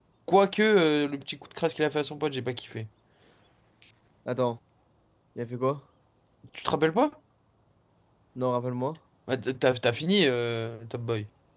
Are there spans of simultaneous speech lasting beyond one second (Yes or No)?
No